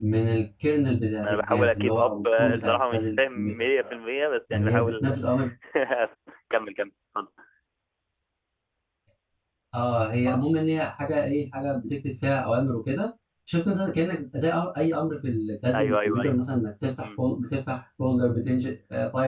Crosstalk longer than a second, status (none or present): present